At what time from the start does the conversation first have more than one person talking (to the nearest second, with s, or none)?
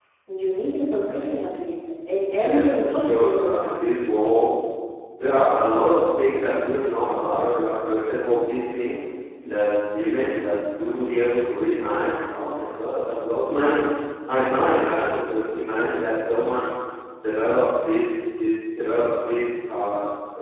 2 s